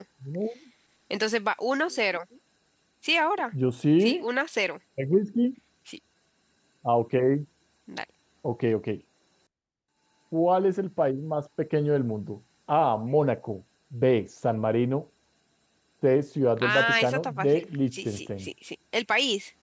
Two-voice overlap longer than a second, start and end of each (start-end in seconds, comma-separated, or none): 16.6-18.5